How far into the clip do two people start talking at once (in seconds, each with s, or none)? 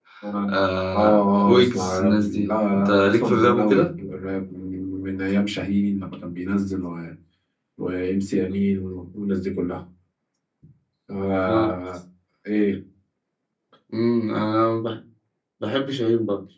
0.9 s